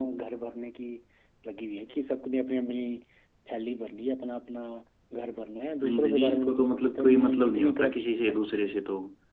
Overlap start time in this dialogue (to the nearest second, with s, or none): 6 s